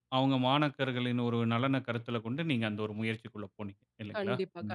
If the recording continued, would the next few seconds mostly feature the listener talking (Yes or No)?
Yes